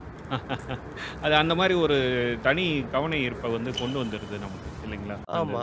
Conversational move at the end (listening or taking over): taking over